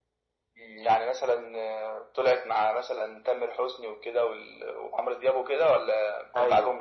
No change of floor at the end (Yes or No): No